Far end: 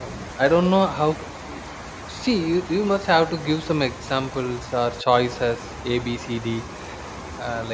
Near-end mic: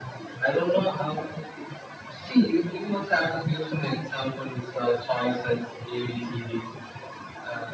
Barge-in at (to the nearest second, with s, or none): none